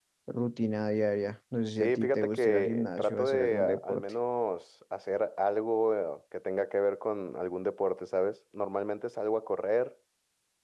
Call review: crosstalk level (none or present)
present